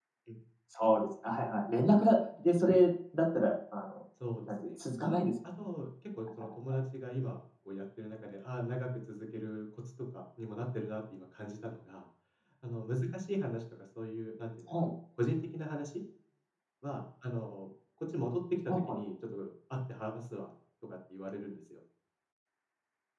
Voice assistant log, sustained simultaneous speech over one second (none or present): none